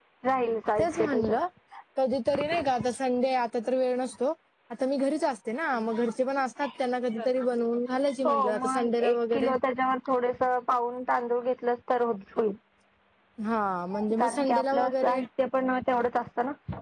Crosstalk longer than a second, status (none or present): present